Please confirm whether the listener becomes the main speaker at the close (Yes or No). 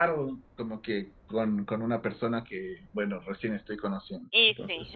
Yes